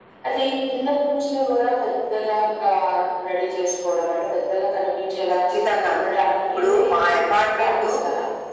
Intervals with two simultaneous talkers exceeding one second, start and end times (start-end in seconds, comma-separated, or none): 6.5-7.9